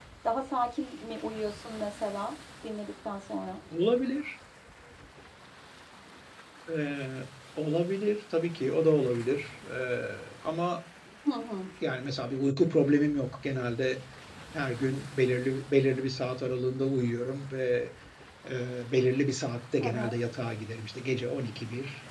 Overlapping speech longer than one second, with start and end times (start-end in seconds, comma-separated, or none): none